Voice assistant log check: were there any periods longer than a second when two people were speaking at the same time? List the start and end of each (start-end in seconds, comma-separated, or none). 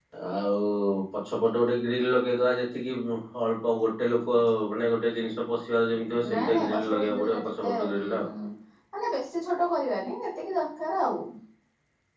6.3-8.2